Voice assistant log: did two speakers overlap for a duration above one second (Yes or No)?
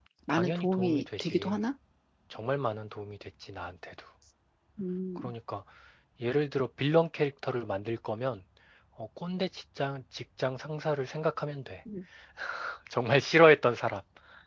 Yes